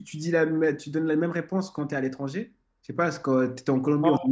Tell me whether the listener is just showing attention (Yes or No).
Yes